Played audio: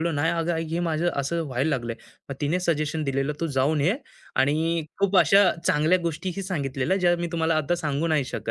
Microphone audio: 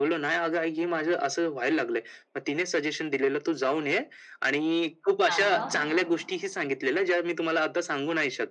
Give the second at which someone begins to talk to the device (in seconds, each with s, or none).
5.3 s